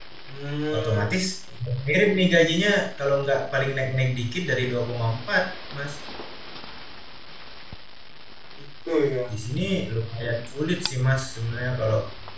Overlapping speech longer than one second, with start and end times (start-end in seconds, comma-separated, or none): none